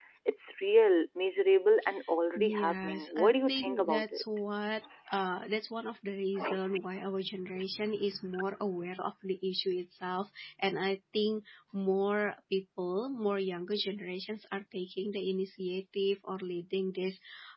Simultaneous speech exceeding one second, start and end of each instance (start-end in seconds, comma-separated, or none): 2.4-4.2